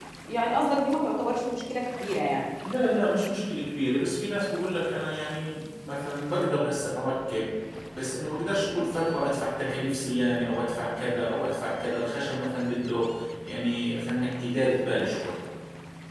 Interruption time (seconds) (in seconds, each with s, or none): none